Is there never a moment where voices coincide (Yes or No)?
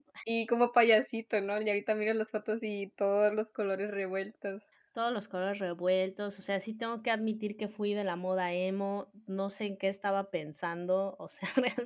Yes